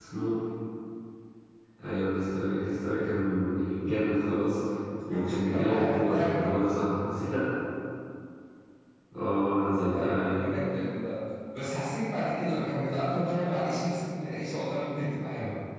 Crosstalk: present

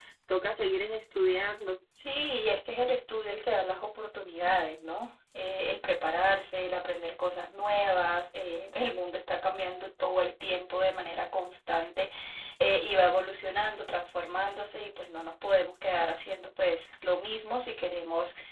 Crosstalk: none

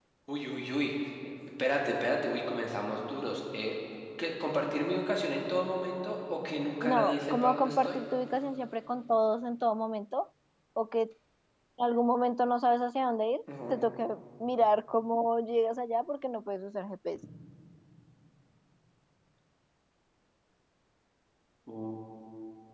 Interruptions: present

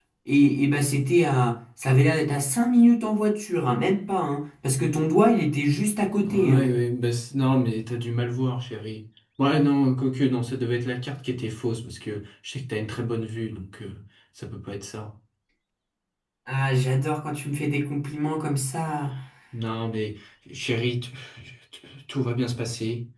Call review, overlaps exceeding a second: none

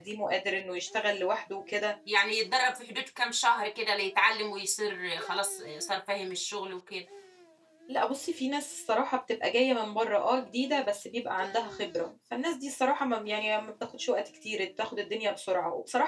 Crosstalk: none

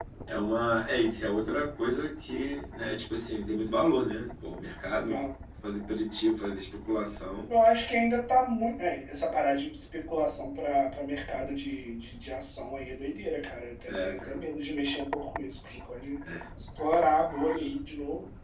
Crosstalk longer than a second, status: none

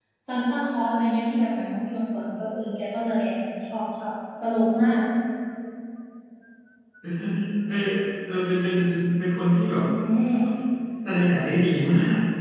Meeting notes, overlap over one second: none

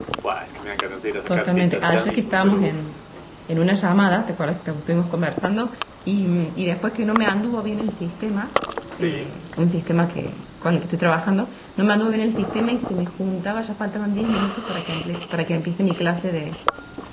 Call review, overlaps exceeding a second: present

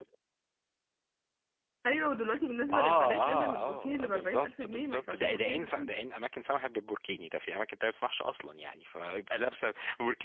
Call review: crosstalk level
present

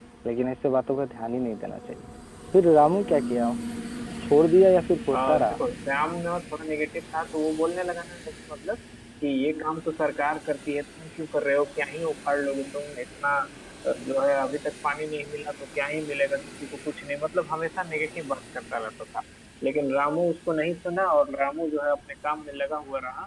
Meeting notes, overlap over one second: none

